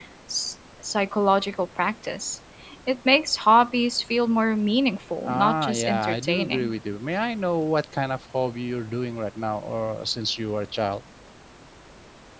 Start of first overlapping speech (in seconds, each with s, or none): 5.2 s